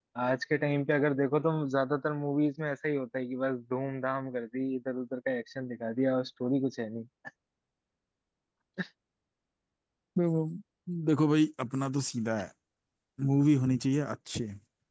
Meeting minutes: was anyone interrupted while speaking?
No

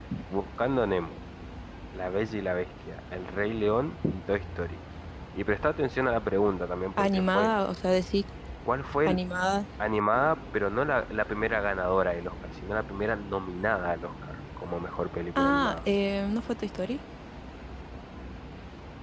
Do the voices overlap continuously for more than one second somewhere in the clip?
No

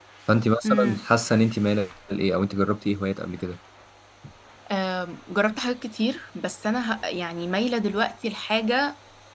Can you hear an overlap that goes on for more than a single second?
No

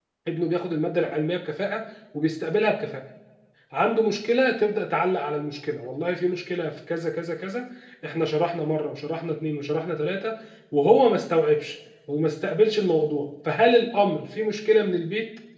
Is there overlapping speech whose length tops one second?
No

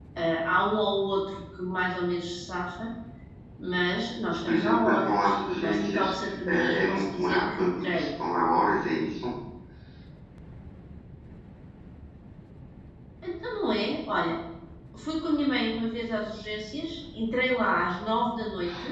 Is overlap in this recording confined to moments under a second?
No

